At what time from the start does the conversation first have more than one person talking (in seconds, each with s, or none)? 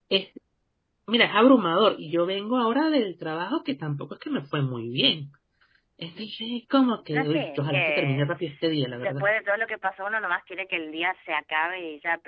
7.1 s